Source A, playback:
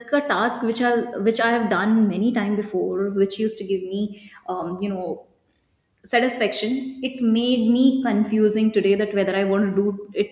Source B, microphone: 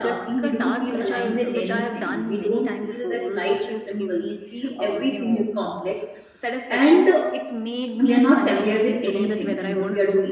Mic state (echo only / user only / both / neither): both